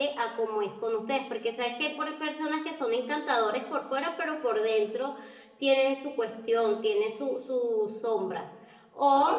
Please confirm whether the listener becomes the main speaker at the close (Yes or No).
No